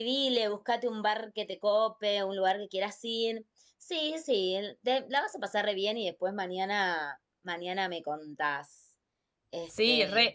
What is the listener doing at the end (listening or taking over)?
taking over